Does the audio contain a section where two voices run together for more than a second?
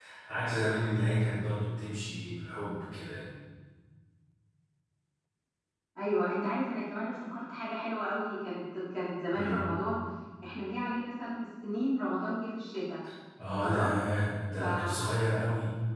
No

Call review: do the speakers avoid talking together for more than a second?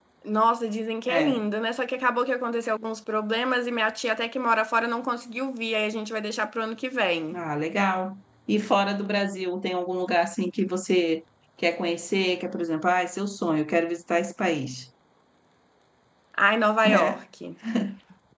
Yes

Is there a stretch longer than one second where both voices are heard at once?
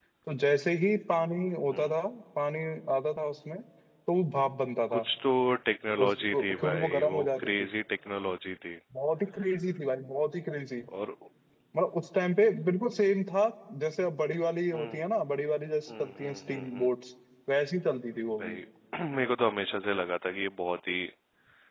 Yes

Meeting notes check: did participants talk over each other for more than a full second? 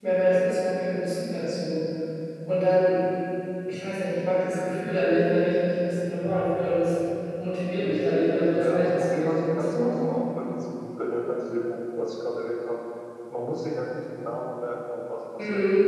Yes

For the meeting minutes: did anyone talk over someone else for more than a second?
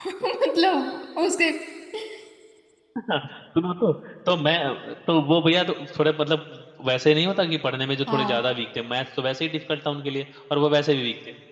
No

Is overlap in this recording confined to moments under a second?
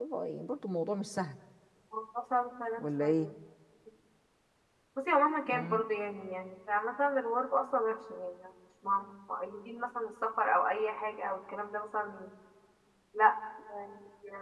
Yes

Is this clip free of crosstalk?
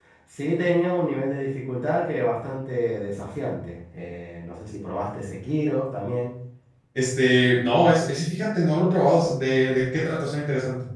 Yes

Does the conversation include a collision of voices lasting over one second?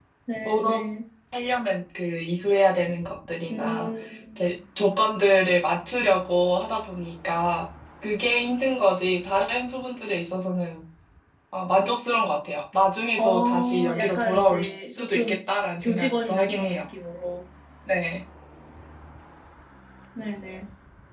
Yes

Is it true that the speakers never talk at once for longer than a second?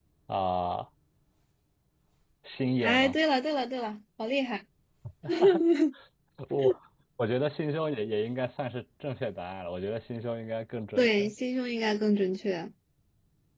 Yes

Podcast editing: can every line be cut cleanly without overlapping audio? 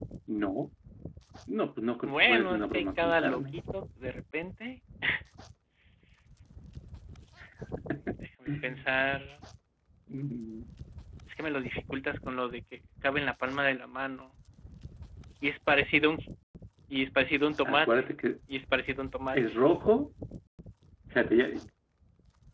No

